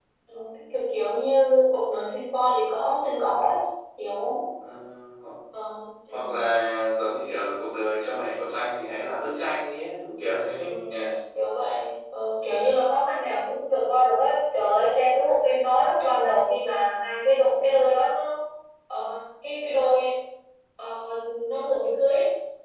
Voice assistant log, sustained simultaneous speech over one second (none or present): none